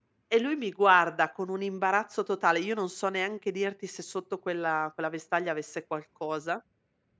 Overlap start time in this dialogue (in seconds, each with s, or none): none